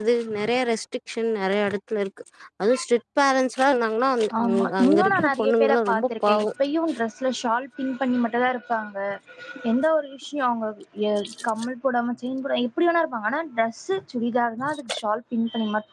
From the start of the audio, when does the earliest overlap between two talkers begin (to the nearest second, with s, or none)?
4 s